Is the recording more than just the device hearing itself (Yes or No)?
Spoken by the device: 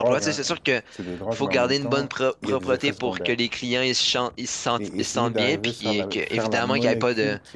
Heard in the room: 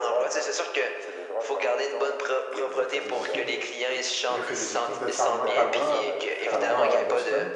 Yes